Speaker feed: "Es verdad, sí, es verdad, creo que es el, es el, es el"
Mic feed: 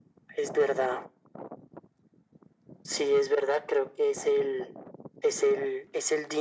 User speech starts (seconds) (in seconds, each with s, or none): none